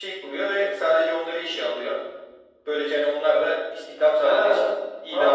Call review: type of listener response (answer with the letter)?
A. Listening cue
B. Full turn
B